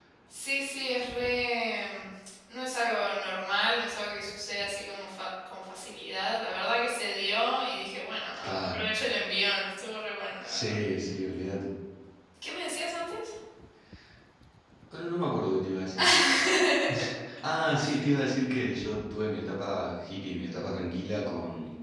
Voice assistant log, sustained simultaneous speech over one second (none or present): none